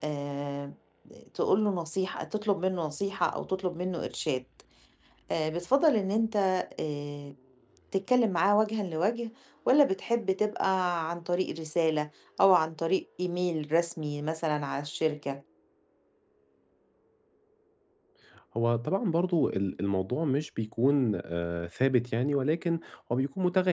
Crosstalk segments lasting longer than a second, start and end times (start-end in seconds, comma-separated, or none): none